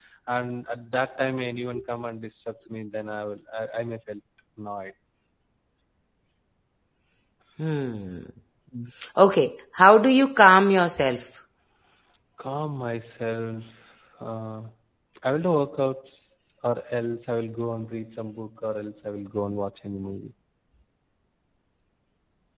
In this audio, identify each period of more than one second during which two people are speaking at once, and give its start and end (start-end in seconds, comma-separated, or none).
none